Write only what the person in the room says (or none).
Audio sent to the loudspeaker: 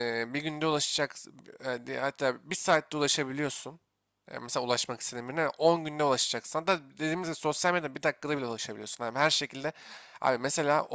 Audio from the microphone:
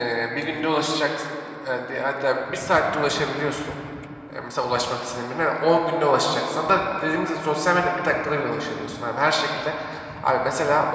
none